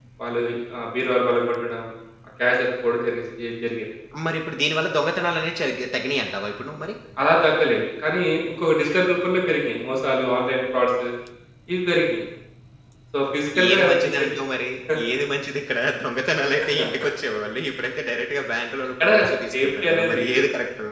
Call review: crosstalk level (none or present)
present